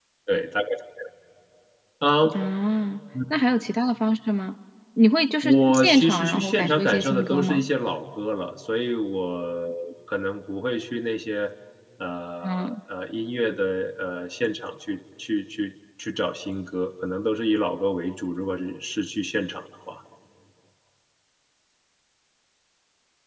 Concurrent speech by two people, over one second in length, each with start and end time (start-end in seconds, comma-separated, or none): 5.4-7.6